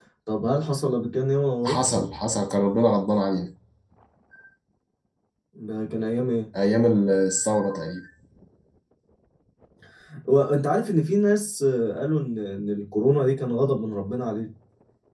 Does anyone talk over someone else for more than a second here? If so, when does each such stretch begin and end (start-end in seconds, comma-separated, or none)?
none